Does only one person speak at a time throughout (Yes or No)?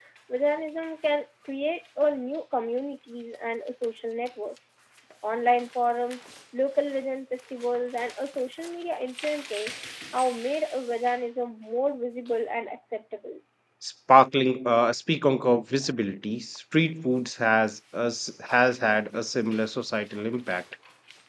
Yes